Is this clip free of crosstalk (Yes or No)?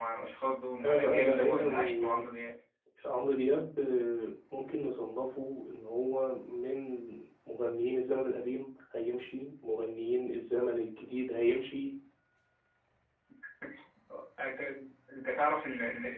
No